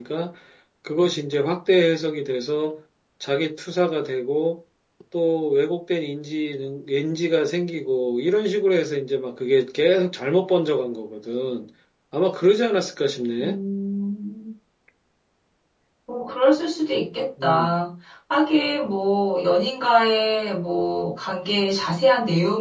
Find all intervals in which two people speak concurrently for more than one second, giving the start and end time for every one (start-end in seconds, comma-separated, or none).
none